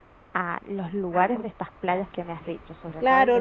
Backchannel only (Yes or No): No